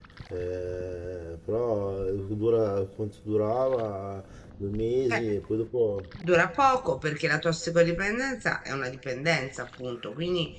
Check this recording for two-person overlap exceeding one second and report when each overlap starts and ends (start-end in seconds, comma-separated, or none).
none